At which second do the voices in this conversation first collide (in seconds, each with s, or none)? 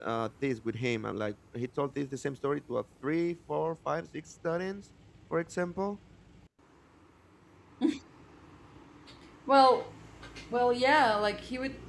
none